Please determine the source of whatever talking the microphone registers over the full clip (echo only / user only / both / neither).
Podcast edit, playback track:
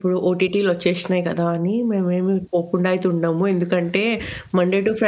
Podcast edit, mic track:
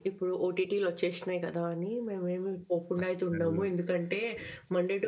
both